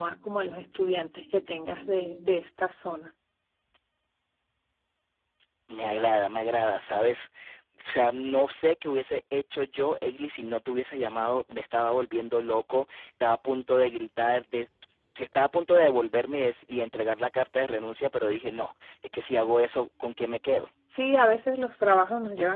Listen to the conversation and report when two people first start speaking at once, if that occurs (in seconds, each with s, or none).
none